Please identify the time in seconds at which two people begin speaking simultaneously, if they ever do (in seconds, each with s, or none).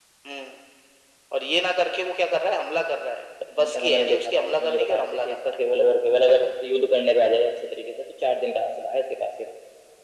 3.5 s